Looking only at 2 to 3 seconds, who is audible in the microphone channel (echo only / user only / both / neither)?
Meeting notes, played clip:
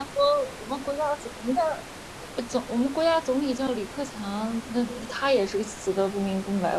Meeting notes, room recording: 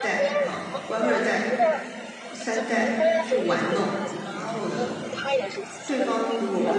both